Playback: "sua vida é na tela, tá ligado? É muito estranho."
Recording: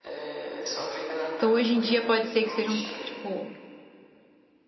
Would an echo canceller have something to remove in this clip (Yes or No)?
Yes